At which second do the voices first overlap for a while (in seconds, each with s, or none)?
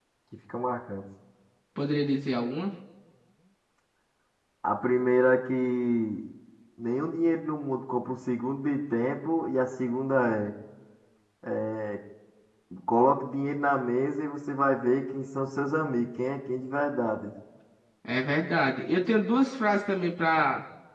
none